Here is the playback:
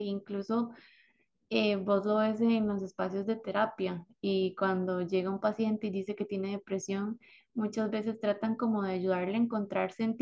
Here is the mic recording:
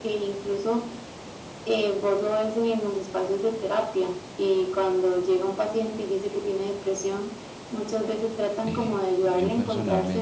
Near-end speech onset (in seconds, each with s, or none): 8.6 s